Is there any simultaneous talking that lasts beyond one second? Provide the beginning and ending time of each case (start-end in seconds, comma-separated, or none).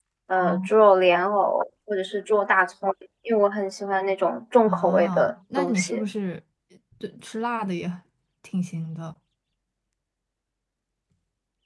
4.7-6.0